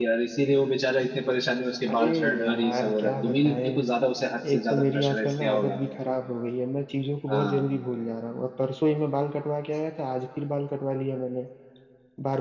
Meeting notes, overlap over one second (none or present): present